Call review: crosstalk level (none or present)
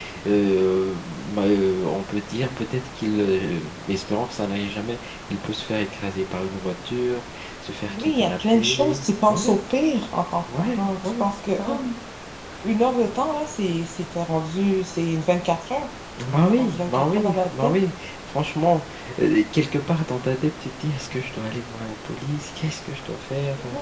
present